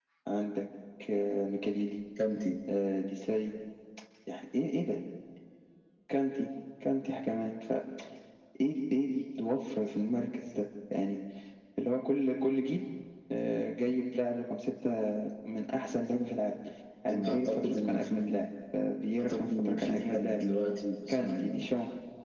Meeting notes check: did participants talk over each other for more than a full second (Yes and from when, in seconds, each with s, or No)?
Yes, from 17.1 s